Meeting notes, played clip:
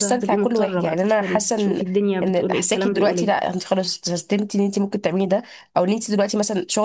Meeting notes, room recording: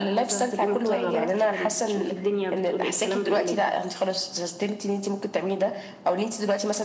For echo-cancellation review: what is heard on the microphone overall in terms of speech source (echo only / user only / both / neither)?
both